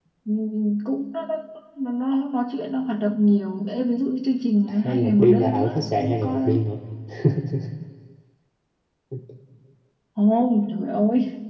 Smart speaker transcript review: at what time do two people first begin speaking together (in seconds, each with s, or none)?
4.7 s